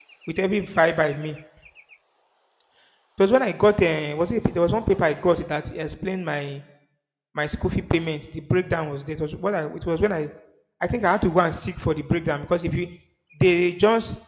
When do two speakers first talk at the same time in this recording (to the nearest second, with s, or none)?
none